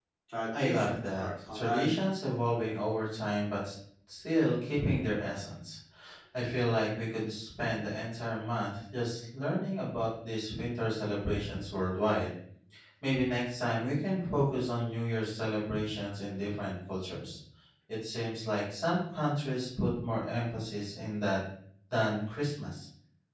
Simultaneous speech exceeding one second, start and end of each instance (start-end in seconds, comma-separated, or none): 0.6-1.9